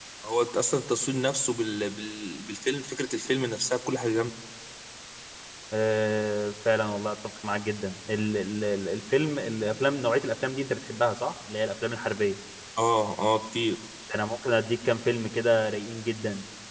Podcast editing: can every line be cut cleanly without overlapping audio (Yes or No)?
Yes